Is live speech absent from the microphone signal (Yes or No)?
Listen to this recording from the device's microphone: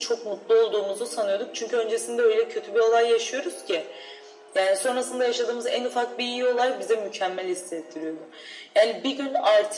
Yes